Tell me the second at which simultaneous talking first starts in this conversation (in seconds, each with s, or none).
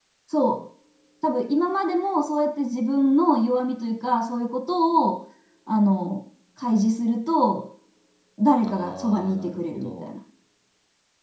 8.7 s